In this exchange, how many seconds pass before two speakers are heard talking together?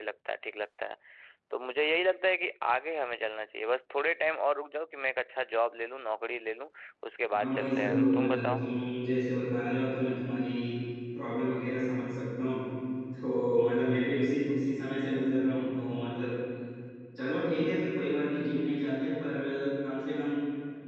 7.3 s

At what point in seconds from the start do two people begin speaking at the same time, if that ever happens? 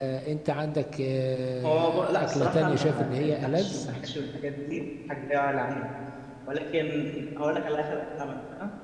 1.6 s

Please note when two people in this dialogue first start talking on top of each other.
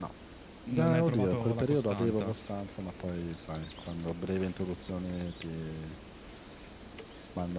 0.7 s

